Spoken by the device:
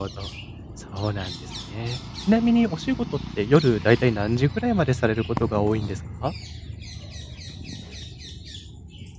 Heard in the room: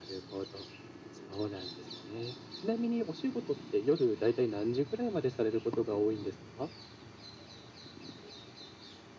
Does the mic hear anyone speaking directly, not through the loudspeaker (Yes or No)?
No